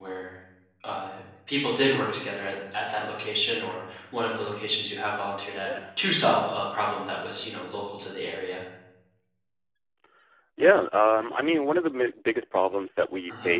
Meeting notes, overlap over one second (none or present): none